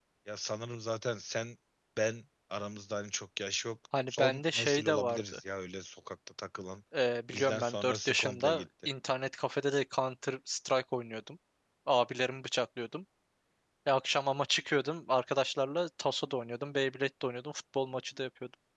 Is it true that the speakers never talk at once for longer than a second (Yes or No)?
No